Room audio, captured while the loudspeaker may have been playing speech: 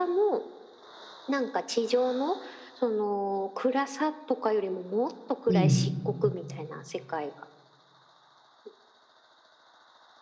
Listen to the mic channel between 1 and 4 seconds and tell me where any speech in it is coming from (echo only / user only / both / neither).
echo only